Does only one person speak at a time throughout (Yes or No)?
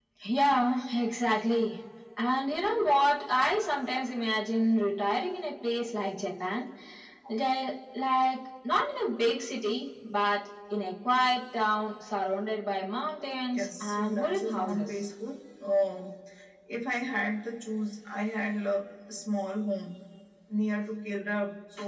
No